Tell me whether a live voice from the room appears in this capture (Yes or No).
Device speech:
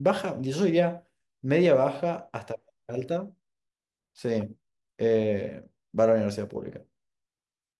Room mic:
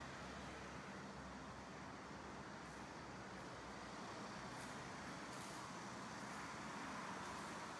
No